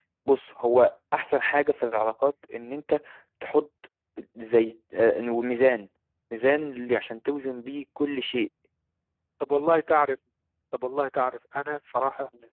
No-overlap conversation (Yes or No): Yes